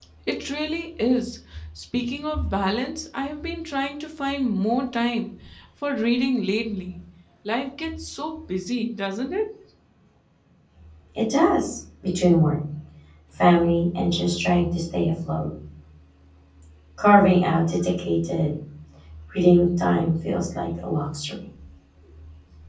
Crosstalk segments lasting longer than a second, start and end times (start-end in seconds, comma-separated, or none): none